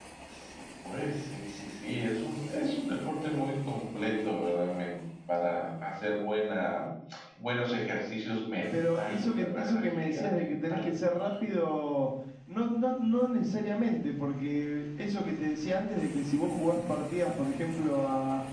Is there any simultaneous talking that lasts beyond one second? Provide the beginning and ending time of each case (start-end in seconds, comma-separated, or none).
8.7-10.9